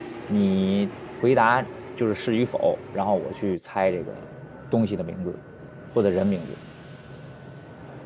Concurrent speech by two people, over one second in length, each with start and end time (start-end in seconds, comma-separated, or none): none